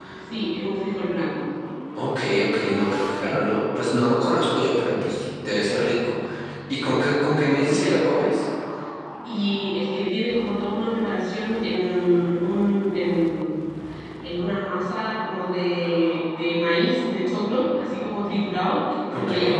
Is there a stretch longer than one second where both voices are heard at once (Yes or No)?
No